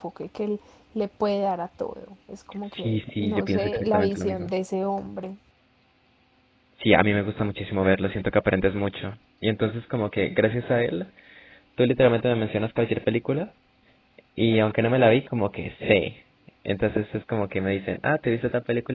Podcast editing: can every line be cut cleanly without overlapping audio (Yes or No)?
No